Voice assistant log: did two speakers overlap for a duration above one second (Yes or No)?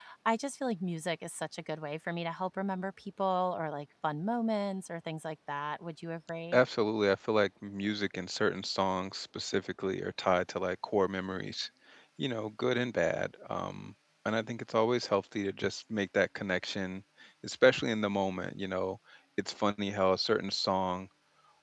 No